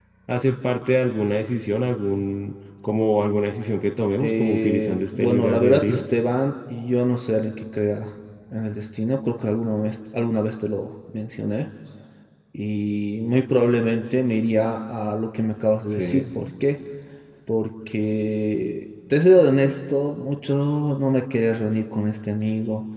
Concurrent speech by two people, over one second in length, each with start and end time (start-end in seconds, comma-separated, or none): 4.2-6.0